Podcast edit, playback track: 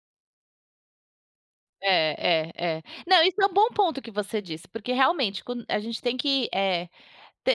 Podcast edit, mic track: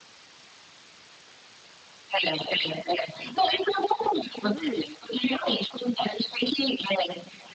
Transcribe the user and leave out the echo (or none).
Uhum,